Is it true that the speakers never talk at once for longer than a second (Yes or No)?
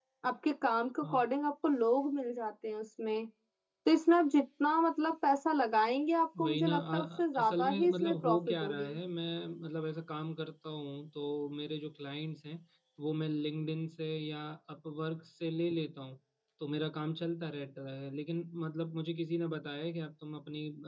No